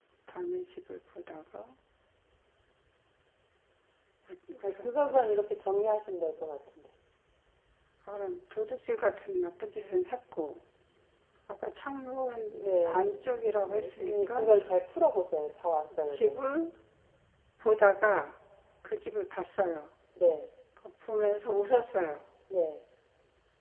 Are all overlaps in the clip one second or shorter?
No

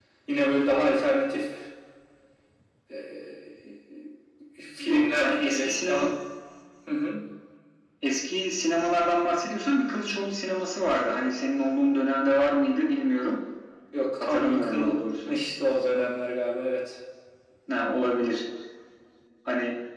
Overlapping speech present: Yes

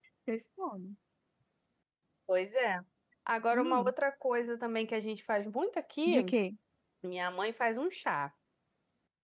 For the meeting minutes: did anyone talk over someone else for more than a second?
No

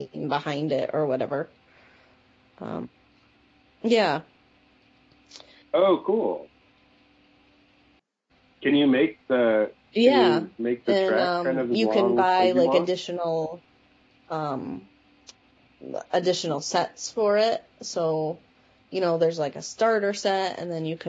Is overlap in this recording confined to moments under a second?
No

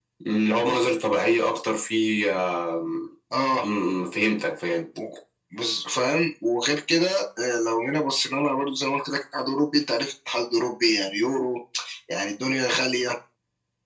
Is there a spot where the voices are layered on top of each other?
No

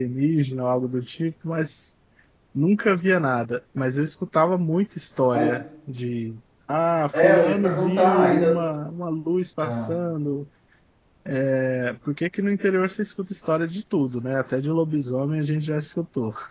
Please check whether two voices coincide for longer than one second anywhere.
Yes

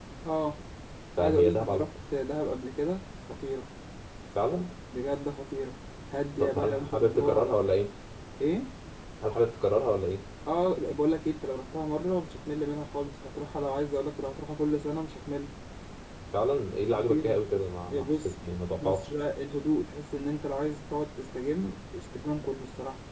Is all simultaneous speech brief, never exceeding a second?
No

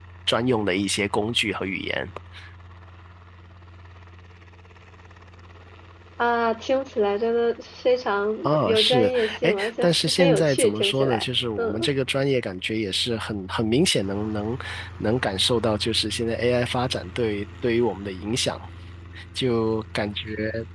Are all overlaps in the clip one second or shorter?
No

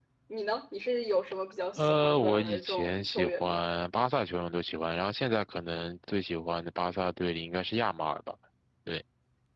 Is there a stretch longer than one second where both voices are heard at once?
Yes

